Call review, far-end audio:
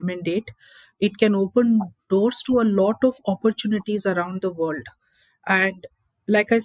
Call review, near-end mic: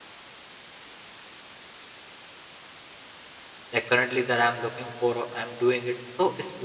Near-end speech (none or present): present